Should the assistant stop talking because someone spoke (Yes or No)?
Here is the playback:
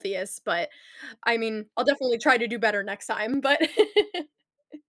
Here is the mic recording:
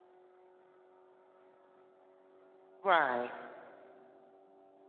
Yes